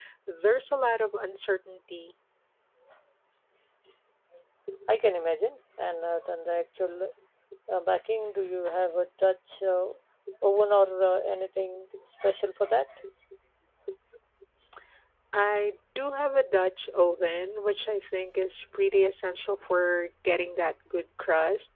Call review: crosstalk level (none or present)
none